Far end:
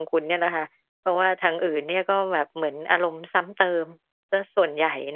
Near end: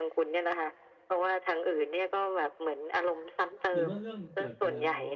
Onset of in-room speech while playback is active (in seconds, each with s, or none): 3.7 s